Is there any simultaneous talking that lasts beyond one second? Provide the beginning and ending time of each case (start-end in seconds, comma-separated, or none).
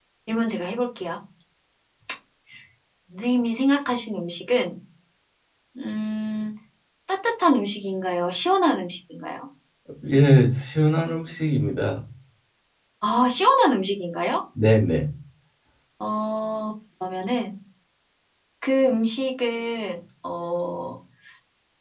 none